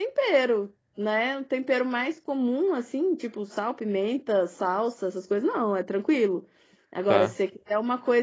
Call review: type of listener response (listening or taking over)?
listening